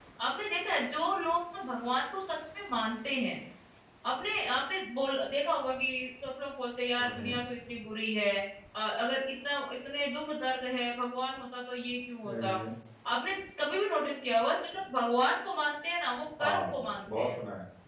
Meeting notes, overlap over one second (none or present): none